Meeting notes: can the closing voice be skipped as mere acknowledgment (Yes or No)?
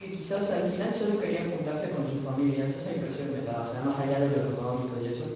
Yes